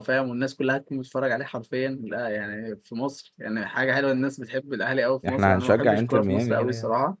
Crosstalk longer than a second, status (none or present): present